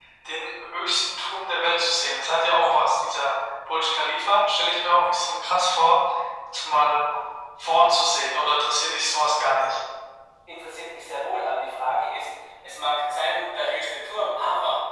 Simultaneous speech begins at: none

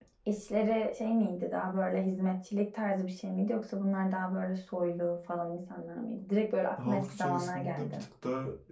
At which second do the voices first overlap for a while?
7 s

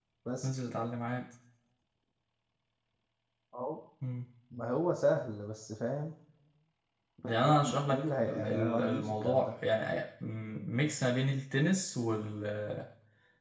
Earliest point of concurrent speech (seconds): 7 s

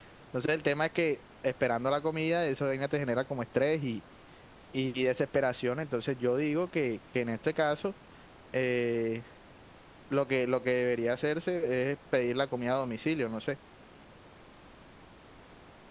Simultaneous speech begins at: none

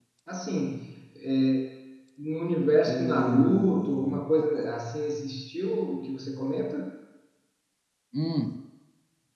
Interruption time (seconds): 3 s

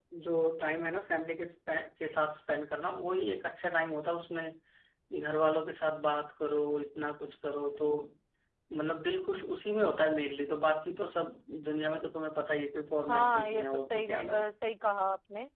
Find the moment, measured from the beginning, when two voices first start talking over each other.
13 s

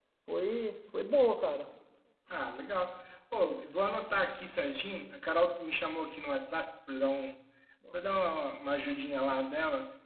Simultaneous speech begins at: none

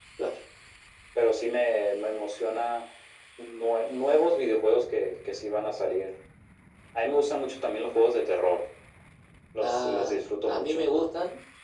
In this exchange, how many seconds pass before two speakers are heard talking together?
10 s

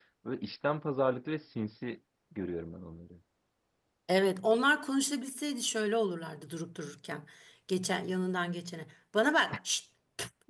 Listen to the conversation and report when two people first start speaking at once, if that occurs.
none

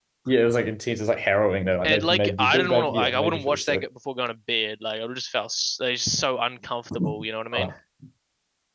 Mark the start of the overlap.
2 s

